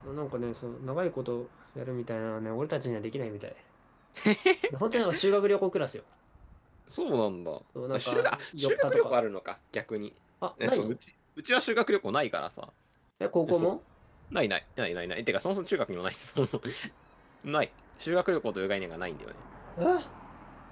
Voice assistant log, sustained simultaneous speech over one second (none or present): present